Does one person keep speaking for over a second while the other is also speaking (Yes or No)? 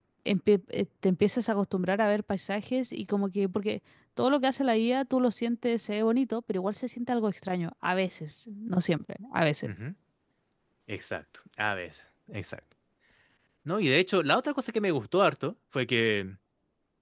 No